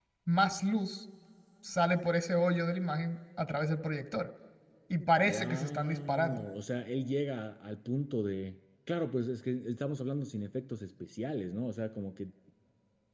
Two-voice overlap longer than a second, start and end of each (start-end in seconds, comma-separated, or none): 5.2-6.4